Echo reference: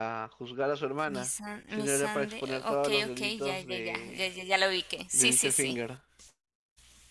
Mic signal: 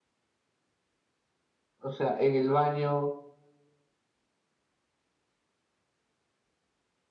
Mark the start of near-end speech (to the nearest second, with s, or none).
2 s